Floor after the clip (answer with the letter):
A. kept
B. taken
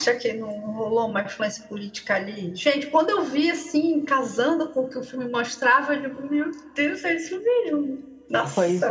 B